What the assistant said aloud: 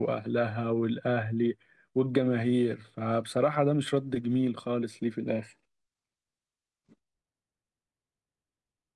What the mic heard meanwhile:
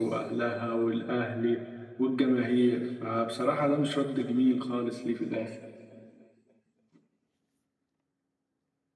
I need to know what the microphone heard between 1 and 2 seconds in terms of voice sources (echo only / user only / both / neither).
echo only